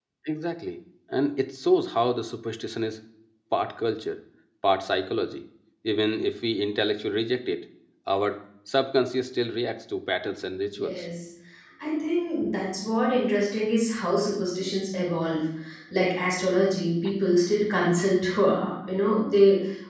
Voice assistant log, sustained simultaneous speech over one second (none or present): none